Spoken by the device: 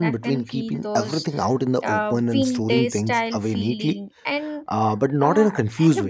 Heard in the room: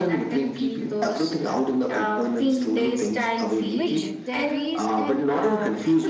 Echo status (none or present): present